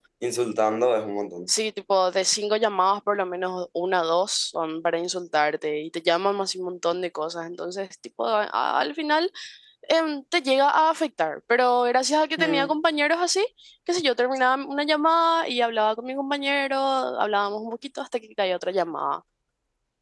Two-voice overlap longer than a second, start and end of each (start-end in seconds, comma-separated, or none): none